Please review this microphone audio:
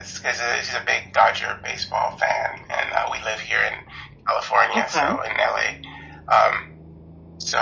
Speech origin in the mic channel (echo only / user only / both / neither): both